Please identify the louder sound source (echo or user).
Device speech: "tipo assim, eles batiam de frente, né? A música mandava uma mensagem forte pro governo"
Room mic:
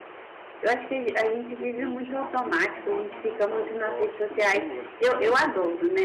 user